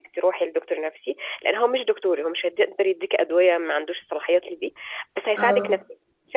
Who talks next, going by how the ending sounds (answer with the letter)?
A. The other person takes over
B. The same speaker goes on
B